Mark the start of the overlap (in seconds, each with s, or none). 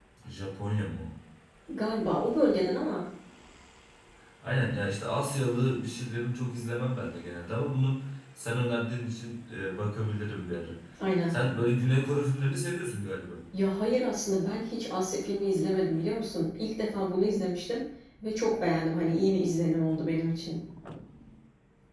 none